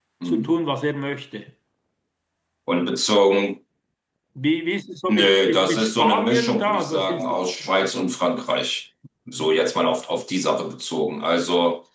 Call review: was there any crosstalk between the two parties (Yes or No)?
Yes